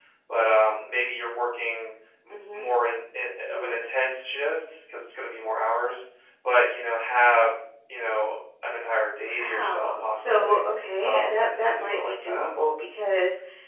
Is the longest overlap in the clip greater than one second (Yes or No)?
Yes